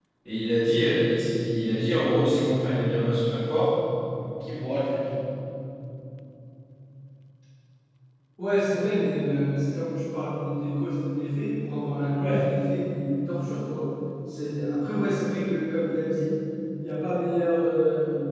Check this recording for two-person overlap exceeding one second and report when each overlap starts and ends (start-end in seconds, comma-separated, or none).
none